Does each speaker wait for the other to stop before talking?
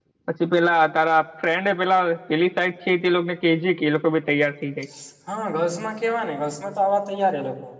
Yes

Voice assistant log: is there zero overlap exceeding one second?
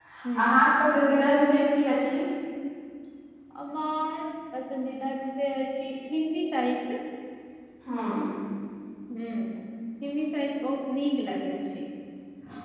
Yes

